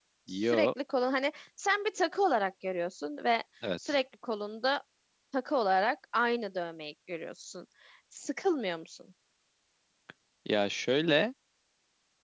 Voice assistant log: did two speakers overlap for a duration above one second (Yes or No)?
No